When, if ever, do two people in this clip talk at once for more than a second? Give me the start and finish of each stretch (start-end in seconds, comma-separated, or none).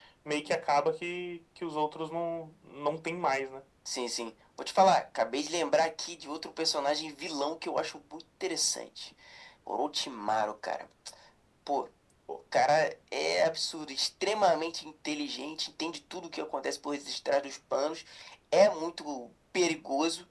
none